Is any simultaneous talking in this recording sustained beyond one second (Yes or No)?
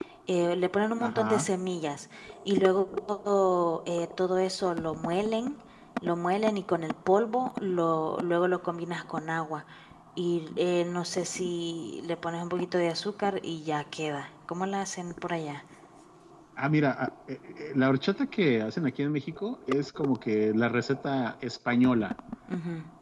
No